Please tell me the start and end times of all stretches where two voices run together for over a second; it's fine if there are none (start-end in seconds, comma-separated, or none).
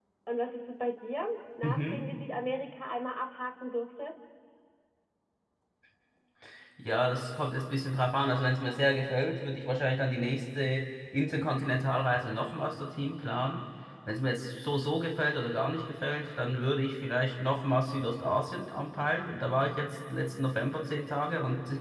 none